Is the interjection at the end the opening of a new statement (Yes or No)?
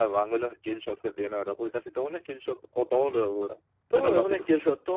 Yes